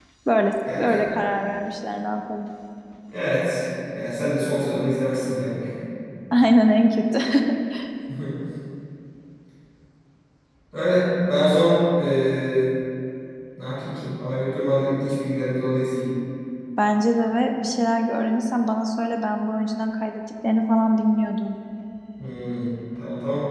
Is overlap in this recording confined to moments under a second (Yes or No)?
Yes